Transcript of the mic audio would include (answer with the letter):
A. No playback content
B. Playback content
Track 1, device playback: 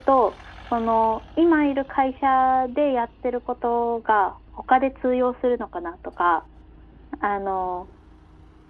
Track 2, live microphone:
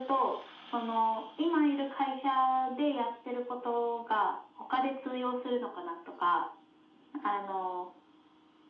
B